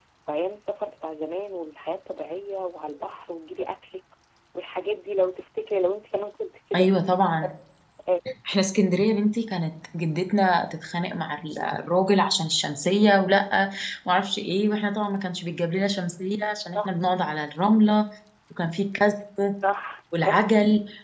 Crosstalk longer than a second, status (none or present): none